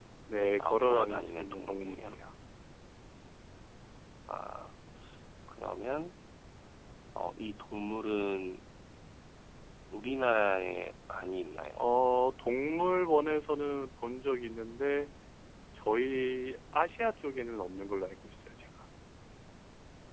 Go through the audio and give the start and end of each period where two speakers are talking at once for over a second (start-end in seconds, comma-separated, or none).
0.6-2.2